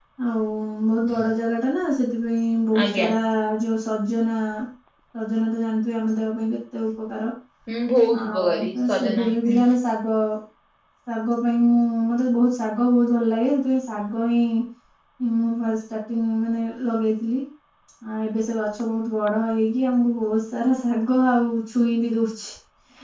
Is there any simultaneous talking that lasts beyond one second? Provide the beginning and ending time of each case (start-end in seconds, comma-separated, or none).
8.2-9.6